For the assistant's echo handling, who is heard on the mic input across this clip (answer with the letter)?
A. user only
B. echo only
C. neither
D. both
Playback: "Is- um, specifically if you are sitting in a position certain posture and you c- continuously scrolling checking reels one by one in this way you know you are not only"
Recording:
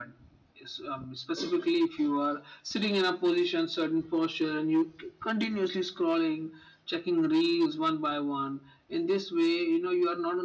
B